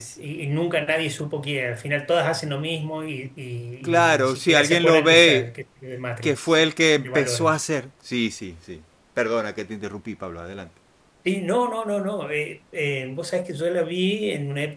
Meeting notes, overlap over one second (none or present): present